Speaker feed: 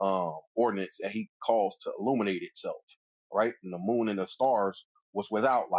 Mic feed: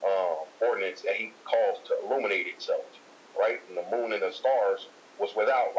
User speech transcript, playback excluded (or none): none